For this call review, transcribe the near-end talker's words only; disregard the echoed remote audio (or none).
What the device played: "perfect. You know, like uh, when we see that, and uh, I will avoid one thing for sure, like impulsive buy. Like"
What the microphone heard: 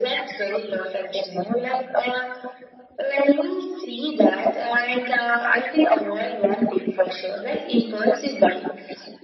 none